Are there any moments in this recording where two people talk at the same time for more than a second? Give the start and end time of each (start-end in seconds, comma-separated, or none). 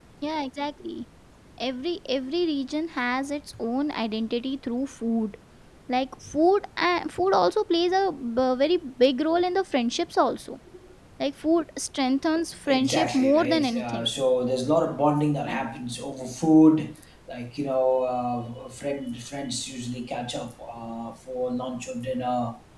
12.7-14.1